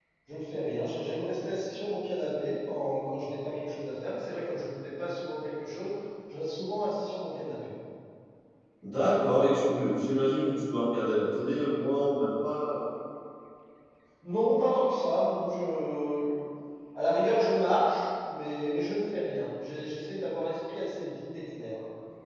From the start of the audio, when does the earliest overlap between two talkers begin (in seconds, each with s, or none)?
none